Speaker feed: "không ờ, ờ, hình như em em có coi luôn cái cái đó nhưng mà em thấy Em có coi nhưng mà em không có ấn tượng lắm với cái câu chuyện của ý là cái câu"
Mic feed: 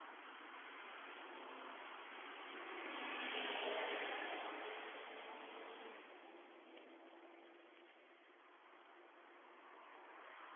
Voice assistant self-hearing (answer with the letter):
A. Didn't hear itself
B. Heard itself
A